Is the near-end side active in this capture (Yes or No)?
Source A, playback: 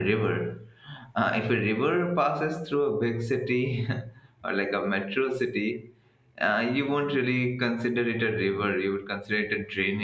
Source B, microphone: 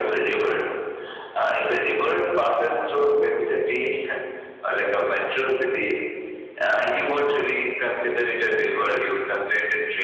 No